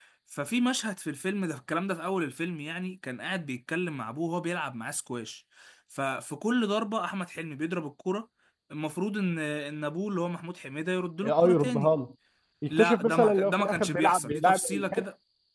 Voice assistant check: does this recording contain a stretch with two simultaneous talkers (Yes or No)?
Yes